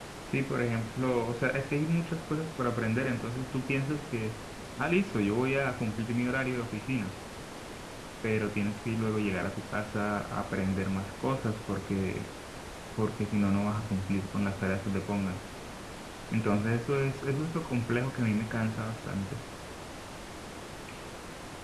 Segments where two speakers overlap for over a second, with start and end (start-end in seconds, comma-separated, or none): none